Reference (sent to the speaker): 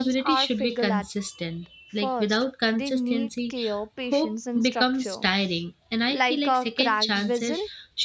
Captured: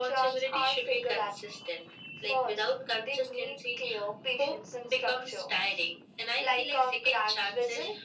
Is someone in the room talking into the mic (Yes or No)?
No